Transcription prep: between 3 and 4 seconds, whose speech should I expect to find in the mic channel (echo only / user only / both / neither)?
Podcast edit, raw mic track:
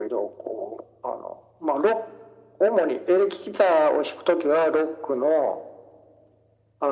echo only